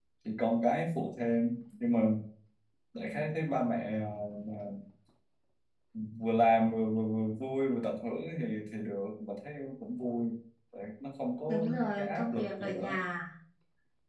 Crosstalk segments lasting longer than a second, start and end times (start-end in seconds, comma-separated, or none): 11.5-13.0